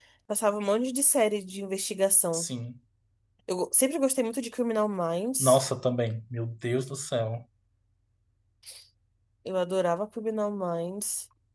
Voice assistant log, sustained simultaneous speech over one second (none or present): none